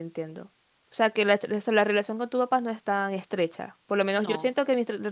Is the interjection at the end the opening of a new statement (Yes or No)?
No